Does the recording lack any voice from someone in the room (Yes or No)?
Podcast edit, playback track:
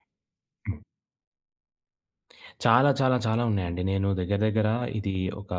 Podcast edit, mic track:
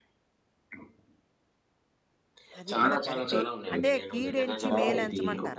No